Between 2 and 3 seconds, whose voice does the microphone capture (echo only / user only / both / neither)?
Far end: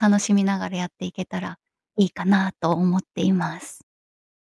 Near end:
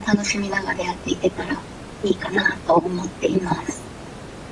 echo only